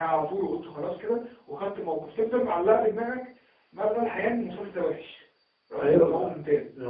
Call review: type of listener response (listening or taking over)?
taking over